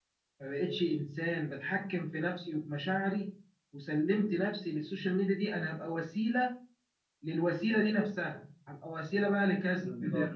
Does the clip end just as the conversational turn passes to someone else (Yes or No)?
No